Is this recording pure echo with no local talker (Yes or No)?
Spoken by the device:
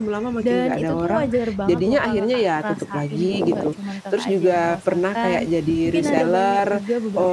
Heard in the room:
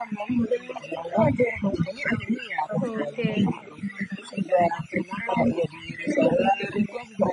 No